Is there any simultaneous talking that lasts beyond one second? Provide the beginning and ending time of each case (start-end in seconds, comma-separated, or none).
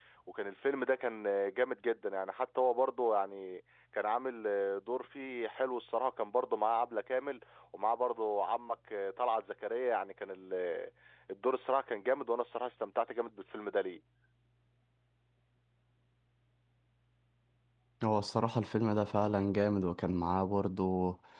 none